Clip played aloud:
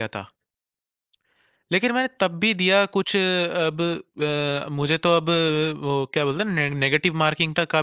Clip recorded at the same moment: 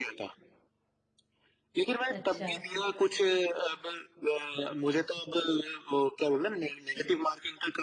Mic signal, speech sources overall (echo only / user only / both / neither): both